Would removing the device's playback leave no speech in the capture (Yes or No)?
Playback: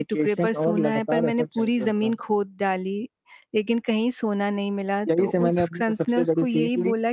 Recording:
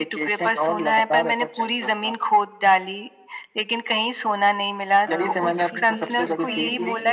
No